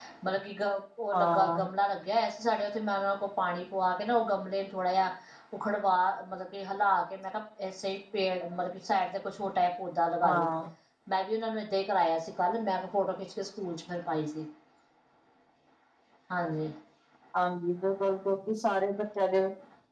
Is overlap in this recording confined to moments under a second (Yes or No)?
Yes